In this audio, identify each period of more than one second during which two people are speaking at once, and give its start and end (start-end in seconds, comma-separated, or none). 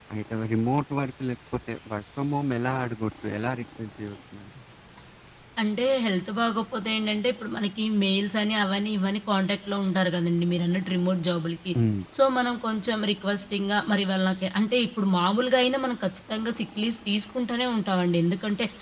none